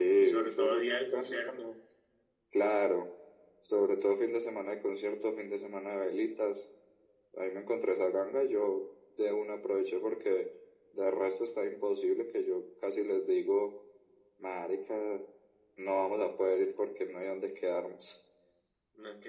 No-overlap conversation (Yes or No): No